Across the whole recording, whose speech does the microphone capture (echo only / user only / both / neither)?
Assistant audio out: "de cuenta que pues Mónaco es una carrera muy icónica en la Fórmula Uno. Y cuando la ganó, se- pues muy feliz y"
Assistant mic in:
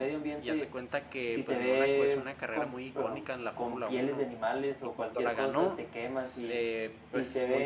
both